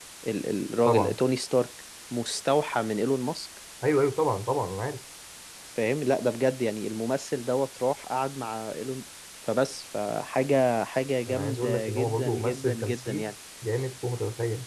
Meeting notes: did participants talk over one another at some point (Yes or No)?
Yes